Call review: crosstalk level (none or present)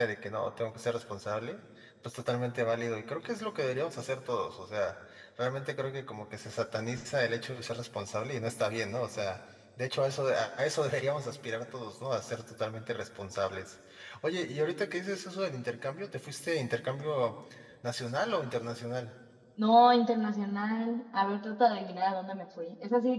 none